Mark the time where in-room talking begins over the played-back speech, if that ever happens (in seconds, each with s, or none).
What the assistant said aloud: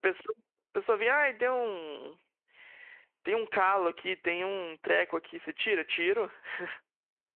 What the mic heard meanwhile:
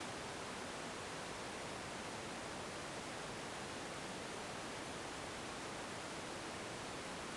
none